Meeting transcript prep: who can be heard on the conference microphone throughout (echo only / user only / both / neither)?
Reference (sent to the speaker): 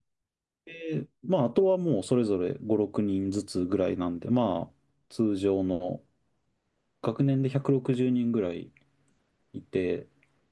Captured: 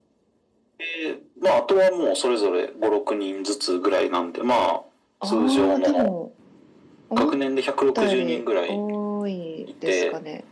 both